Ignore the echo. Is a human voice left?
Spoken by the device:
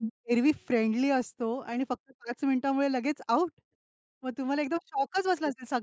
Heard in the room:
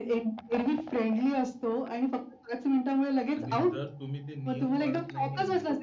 Yes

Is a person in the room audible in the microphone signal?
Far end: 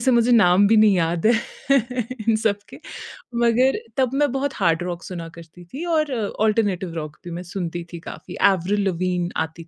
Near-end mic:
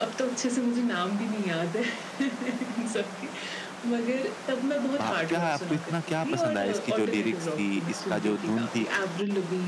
Yes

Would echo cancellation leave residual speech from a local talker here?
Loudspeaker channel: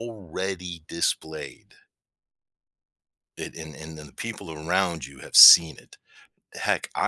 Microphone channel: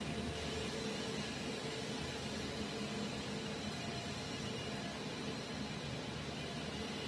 No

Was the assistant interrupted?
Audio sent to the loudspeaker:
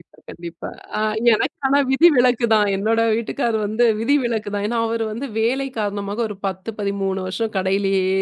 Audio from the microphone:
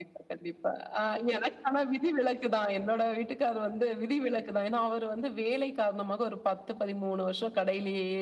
No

